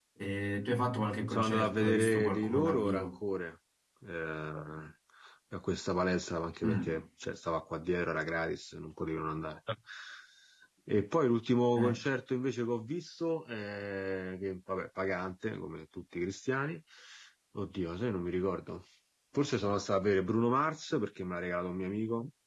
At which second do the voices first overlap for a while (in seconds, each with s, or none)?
1.3 s